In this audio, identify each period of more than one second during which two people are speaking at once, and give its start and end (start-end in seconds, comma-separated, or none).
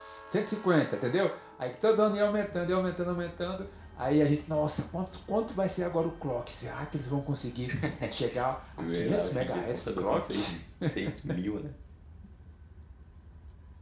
8.9-10.3